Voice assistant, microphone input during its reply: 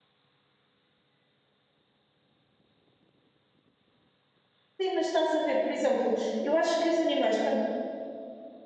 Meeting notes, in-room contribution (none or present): present